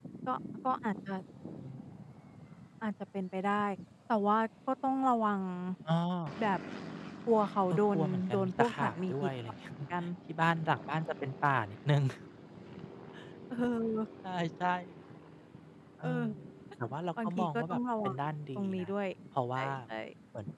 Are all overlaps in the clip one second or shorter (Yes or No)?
No